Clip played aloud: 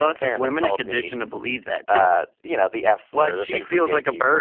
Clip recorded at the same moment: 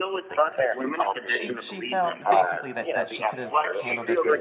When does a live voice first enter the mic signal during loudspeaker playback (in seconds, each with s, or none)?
1.3 s